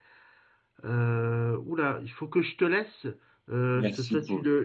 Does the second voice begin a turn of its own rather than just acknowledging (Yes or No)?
No